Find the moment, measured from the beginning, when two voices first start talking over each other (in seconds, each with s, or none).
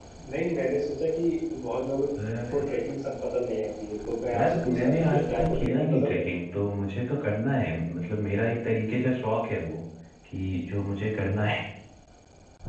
4.3 s